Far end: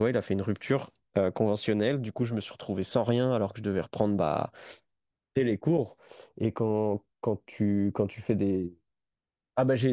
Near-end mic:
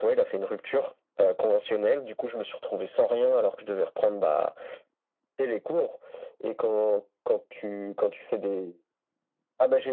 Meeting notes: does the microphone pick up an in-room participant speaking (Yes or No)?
No